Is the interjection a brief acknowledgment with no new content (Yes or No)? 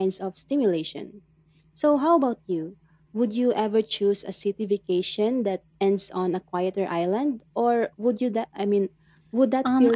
No